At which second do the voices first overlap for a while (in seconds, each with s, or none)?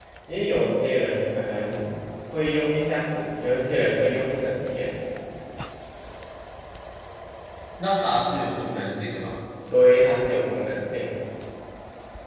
none